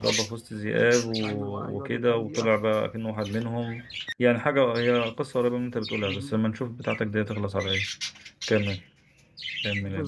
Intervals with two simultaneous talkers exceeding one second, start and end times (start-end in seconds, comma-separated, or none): 1.2-2.5